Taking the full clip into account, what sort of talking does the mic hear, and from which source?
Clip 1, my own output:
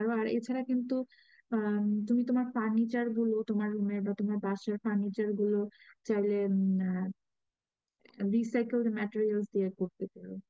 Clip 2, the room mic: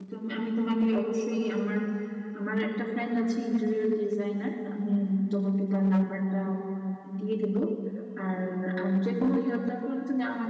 user only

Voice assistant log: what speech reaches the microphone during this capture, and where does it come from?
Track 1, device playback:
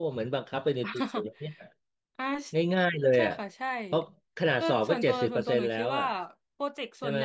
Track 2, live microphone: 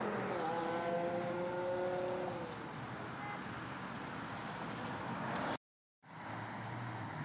neither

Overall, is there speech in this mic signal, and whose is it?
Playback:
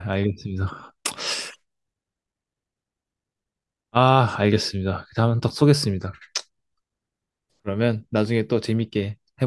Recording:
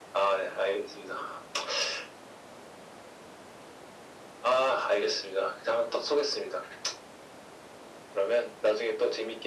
echo only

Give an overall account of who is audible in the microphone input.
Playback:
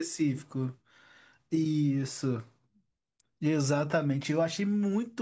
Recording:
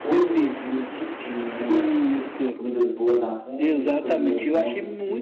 both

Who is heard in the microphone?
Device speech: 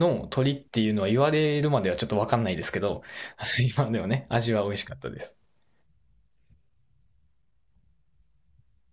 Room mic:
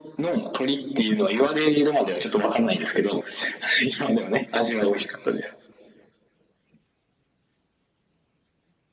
echo only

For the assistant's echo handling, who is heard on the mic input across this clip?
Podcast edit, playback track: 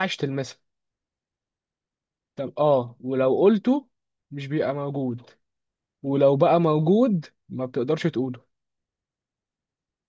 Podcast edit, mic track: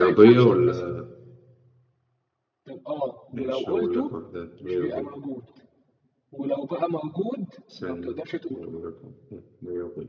both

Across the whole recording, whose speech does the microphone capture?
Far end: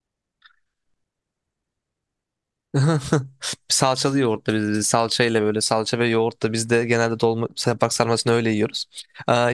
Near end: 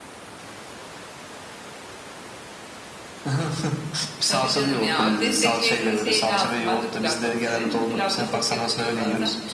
both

